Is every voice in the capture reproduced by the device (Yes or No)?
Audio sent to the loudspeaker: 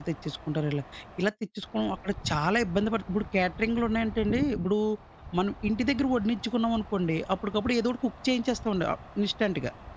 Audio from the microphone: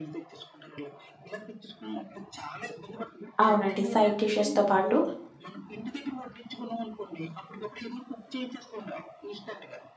No